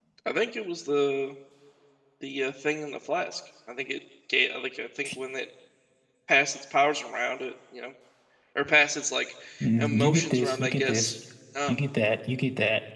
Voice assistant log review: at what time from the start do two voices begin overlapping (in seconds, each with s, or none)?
9.8 s